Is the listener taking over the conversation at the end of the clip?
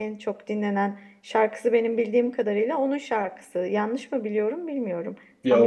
Yes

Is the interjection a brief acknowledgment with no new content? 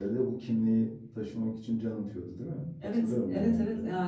No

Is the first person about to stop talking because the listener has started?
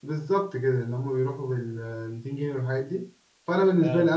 No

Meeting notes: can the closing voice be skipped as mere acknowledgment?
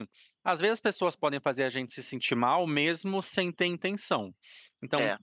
Yes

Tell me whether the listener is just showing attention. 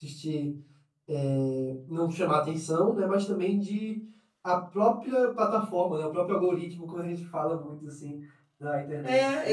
No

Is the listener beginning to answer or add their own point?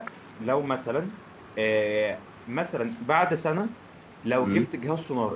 No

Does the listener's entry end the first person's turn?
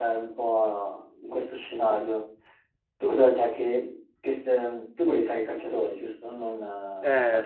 Yes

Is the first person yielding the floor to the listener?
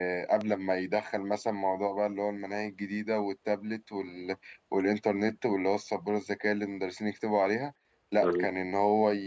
No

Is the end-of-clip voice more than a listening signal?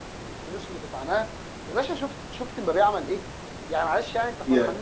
No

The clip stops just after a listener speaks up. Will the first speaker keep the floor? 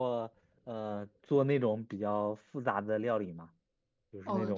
No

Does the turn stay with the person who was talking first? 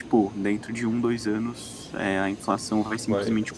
No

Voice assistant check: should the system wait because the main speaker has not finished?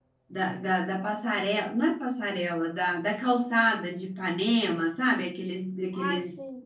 No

